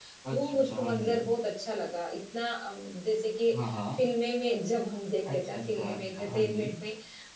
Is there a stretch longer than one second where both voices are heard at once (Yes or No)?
Yes